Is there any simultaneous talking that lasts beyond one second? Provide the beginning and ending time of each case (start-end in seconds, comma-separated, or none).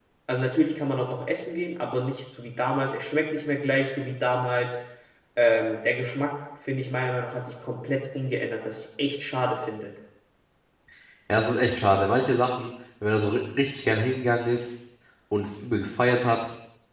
none